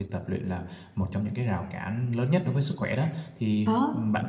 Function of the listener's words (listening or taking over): listening